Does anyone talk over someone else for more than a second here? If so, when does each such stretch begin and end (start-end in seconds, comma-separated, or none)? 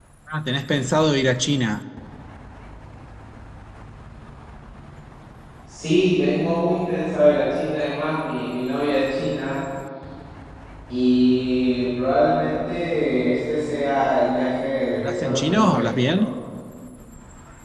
15.0-16.2